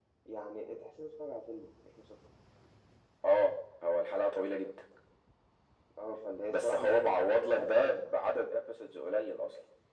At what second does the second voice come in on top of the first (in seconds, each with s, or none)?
6.5 s